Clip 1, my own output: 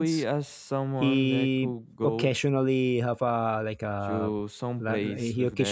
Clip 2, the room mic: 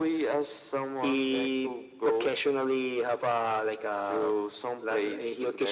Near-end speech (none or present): none